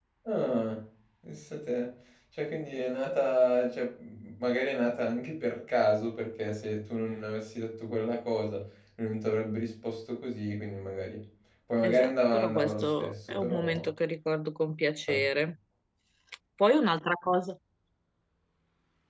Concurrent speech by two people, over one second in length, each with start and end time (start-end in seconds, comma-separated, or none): 11.8-13.9